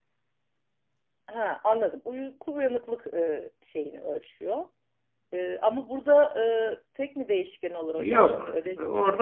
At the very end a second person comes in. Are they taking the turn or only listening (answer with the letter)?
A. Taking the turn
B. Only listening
A